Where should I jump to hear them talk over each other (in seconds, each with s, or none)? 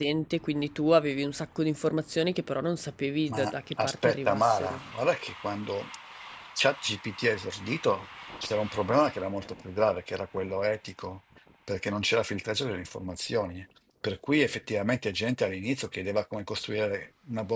3.3 s